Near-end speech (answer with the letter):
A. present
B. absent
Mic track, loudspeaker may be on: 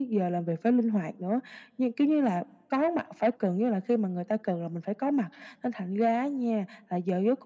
B